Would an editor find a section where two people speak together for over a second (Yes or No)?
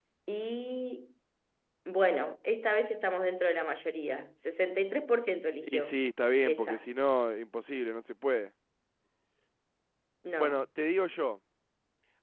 No